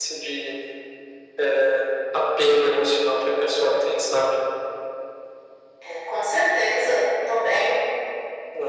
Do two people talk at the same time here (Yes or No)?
No